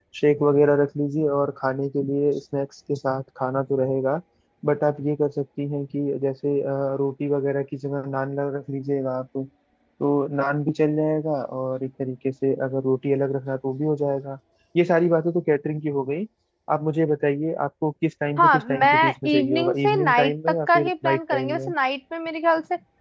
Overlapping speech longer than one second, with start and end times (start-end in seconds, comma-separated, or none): 18.4-21.7